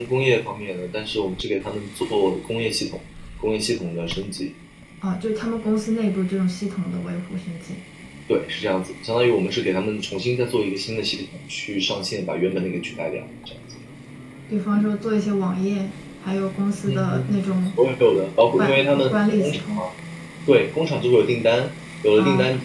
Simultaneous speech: Yes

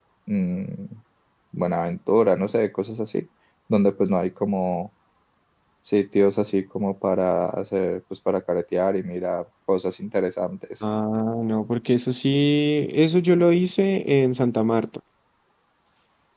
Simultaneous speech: No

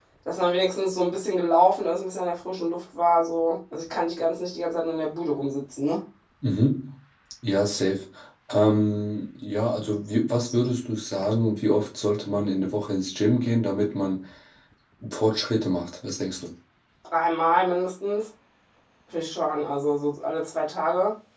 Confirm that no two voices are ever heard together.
Yes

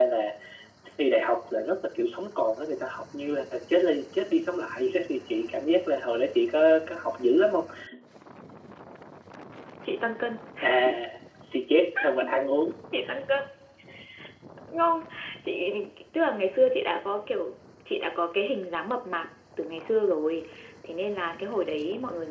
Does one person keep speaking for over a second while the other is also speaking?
No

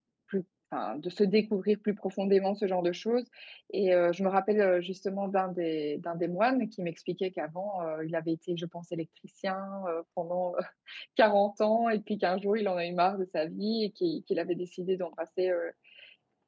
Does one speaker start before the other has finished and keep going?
No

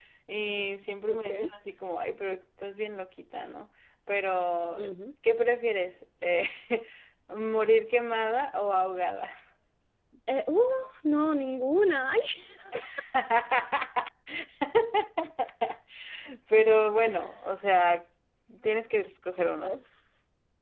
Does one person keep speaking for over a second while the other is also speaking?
No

